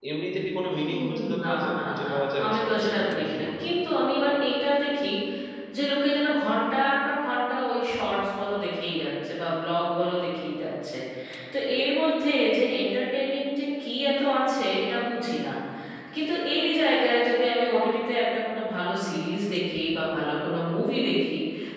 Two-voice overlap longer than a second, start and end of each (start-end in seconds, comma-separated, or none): 0.9-3.7